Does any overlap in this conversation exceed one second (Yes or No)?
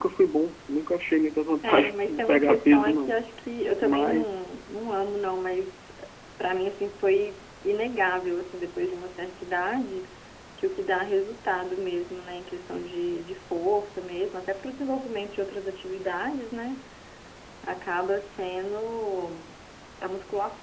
Yes